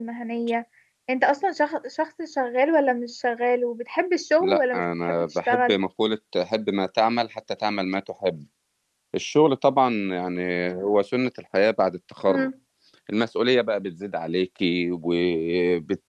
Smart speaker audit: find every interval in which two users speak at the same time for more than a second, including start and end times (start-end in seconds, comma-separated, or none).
4.4-5.7